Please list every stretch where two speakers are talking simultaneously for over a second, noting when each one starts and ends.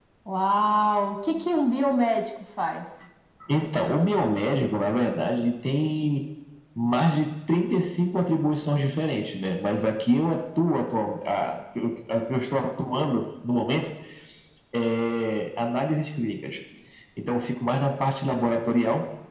none

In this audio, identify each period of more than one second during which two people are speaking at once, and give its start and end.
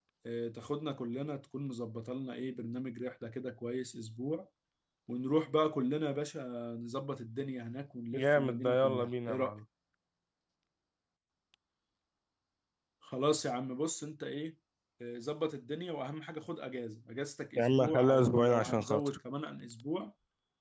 8.1-9.5, 17.6-19.1

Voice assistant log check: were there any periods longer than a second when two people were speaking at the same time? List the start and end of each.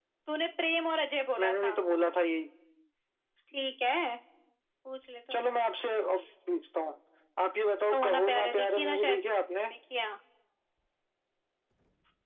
7.9-9.2

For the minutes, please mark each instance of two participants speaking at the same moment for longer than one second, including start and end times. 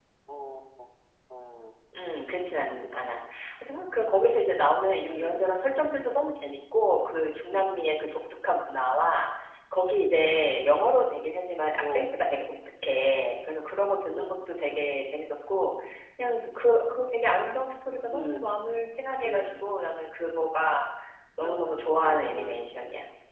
21.4-22.7

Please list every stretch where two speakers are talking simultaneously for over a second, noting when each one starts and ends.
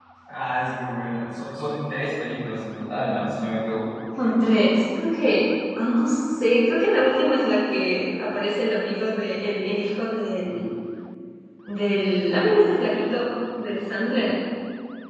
none

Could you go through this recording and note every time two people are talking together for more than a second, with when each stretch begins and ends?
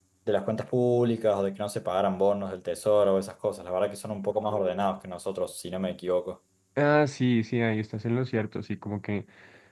none

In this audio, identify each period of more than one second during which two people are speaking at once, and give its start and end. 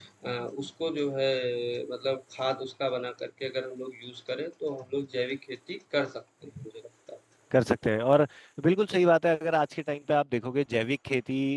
none

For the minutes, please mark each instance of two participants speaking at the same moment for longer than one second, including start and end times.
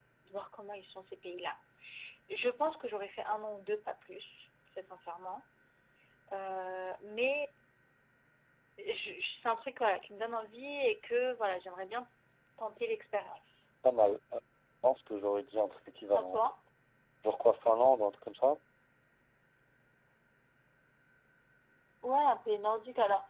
none

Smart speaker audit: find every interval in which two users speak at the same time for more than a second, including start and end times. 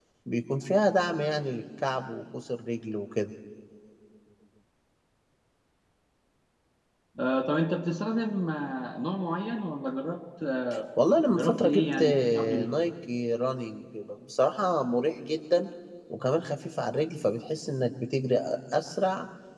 11.3-12.7

